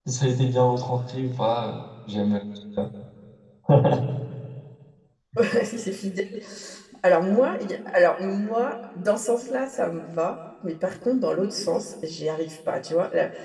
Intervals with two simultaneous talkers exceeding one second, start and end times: none

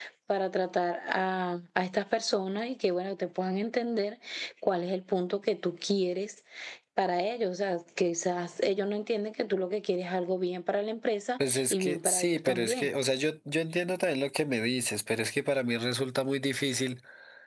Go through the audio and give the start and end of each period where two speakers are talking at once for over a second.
11.5-12.9

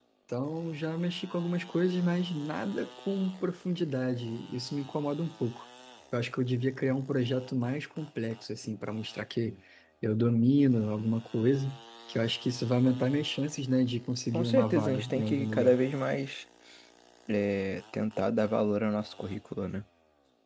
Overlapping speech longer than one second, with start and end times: 14.3-15.8

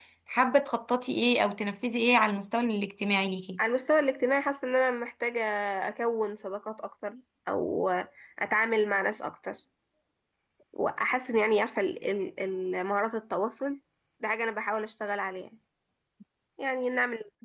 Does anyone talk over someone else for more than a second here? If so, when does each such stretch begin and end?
none

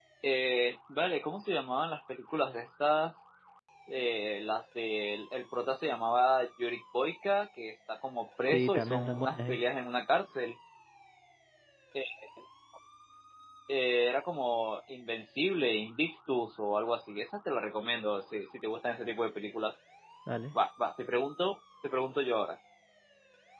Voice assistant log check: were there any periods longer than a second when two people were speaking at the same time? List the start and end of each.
8.5-9.7

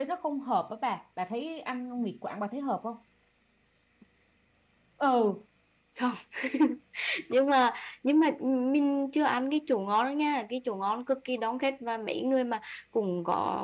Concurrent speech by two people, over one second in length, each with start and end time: none

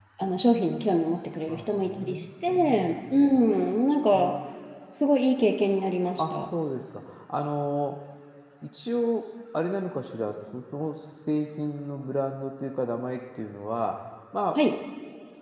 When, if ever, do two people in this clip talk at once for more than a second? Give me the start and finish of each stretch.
1.5-3.2

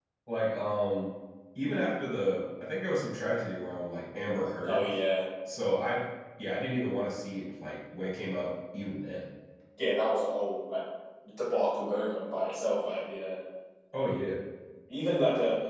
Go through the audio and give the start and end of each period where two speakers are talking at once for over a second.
none

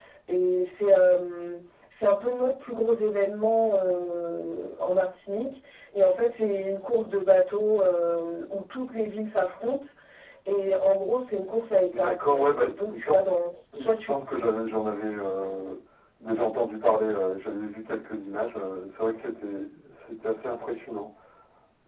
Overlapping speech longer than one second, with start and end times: 11.9-13.2

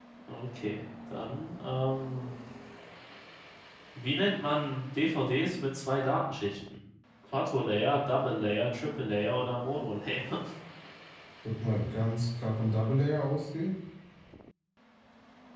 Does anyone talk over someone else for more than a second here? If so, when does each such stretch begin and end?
none

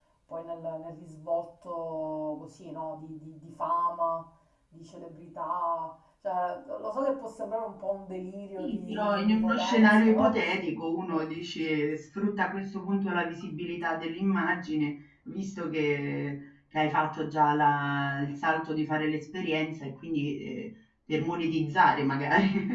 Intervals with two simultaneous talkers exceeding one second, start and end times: 8.6-10.3

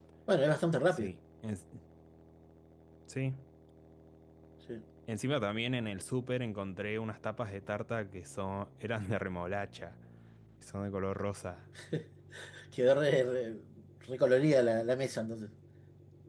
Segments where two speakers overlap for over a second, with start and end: none

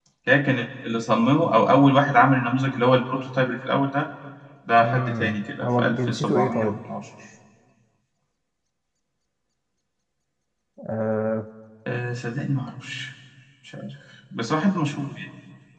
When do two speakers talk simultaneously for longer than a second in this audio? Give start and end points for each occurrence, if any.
4.8-6.8

